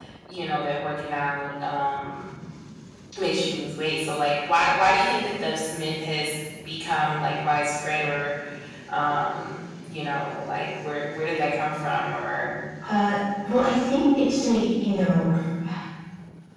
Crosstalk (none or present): none